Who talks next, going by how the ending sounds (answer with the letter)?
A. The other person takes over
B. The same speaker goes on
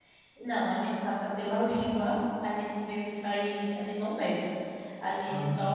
B